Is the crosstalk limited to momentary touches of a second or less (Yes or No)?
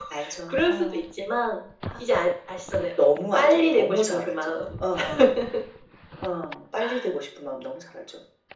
No